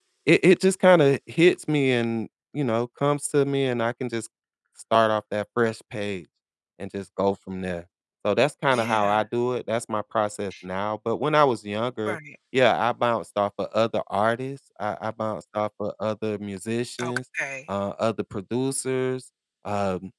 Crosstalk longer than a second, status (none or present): none